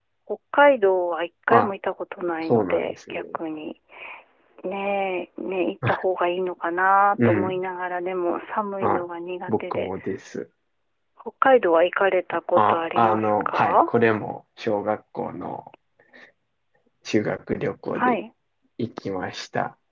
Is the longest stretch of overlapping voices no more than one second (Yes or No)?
No